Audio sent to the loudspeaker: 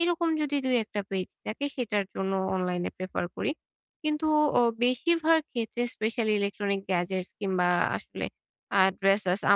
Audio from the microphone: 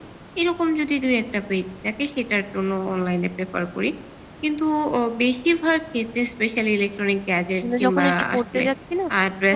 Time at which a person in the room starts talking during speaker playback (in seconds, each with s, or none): 7.6 s